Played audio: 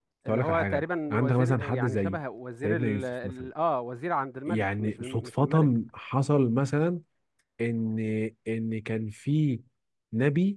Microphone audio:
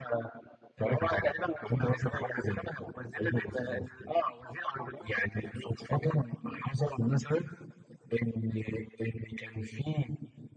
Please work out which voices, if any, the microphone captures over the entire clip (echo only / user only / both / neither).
echo only